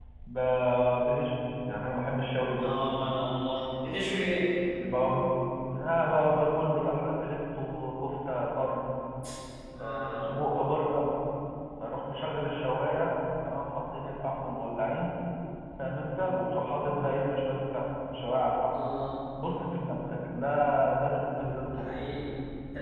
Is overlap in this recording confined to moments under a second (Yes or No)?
Yes